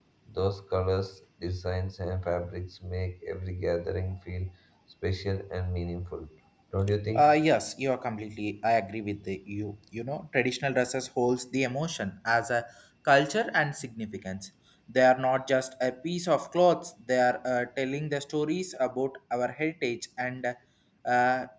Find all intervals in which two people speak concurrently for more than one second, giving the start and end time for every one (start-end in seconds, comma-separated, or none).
none